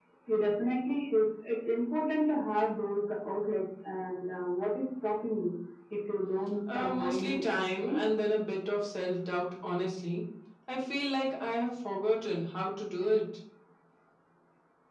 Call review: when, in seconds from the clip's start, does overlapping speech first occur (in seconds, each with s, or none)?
6.7 s